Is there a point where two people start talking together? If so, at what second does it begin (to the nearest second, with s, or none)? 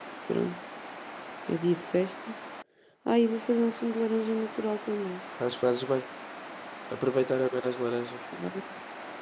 none